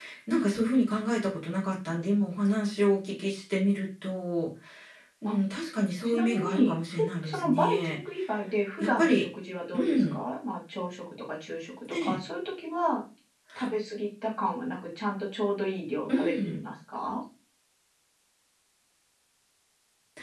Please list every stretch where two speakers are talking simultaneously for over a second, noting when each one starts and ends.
6.0-8.0

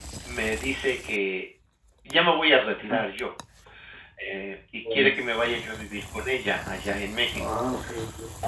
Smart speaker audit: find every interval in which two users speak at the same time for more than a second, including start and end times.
none

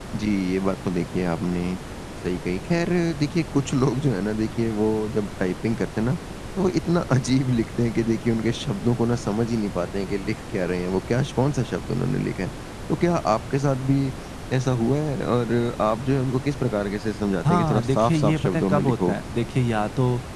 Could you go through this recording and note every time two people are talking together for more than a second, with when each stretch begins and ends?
17.4-19.2

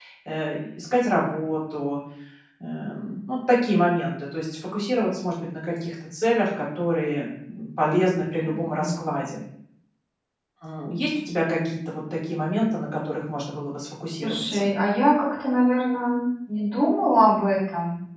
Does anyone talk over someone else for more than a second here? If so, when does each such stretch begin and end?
none

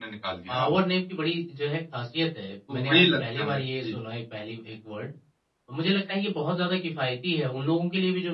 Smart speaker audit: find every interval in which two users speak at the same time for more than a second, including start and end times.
2.7-3.9

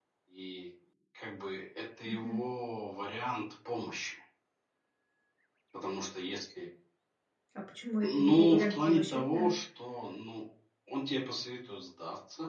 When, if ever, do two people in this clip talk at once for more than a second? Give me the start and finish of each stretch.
8.0-9.5

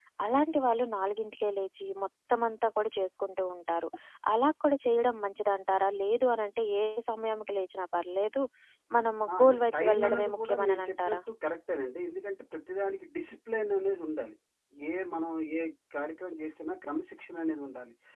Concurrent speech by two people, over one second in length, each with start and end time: 9.4-11.2

